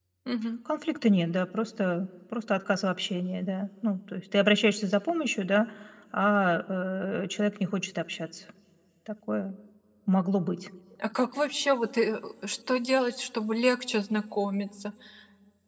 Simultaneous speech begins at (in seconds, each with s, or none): none